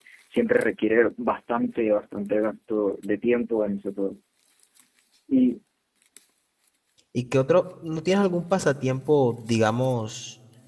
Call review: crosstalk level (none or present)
none